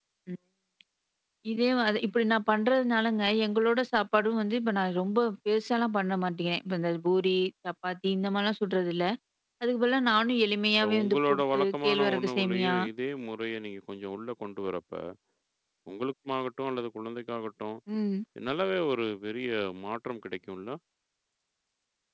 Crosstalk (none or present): present